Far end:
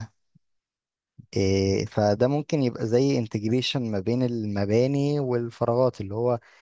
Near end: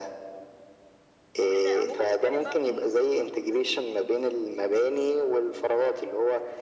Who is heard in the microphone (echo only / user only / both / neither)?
both